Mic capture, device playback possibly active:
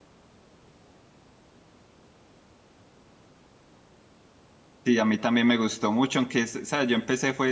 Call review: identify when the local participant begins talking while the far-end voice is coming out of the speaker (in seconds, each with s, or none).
4.8 s